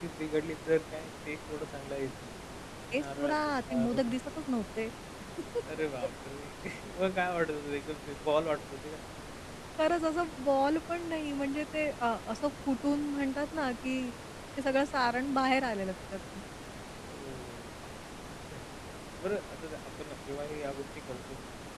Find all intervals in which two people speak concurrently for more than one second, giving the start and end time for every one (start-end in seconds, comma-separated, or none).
2.9-4.3